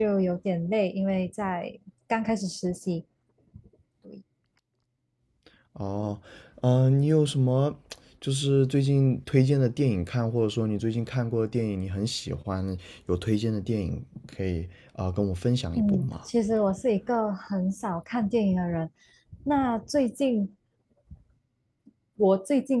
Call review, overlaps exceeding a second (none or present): none